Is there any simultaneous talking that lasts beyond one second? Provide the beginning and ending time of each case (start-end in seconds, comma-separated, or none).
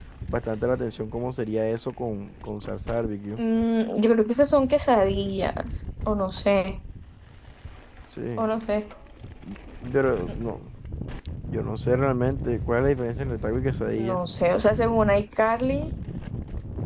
none